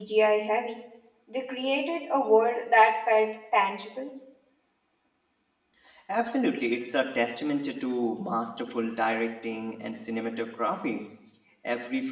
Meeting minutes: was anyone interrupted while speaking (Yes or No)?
No